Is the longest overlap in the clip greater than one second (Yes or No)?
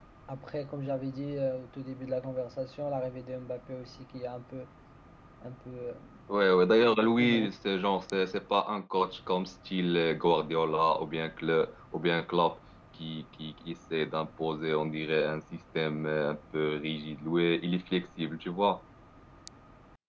No